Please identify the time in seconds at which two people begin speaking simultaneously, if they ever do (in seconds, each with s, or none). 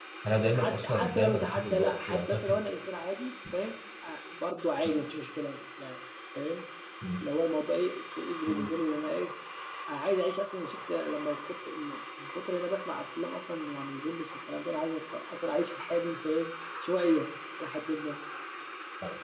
0.5 s